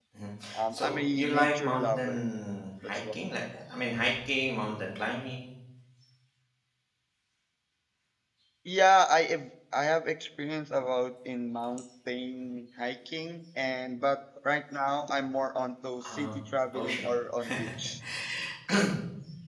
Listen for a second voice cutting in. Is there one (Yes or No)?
Yes